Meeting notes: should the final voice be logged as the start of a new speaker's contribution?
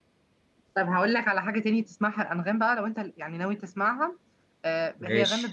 No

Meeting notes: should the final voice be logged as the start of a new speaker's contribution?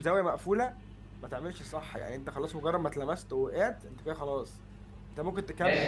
No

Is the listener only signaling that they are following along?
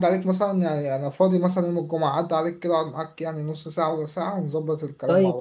No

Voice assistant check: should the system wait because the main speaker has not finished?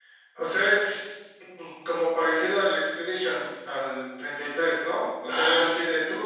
Yes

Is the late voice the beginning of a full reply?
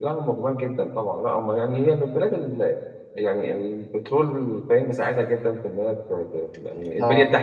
No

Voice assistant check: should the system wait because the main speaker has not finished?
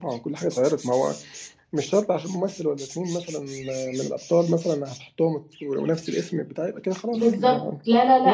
No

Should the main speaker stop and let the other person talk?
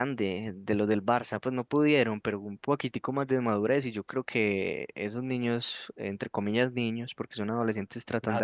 Yes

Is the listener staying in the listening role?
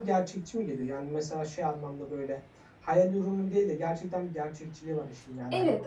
No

